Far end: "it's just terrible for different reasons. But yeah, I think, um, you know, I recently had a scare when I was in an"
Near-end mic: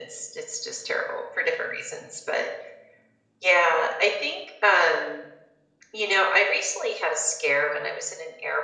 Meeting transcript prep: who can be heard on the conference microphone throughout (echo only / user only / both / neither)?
echo only